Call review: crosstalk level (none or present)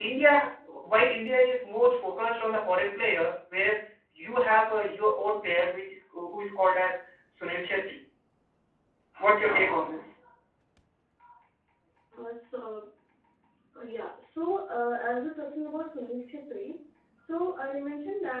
none